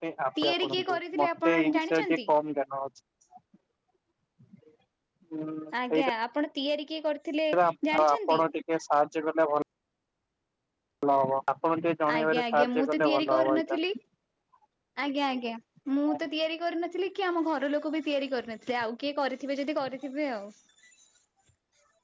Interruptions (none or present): present